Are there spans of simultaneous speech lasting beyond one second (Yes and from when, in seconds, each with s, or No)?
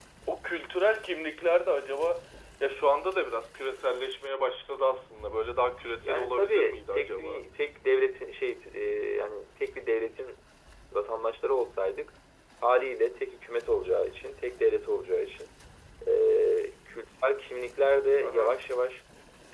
Yes, from 6.0 s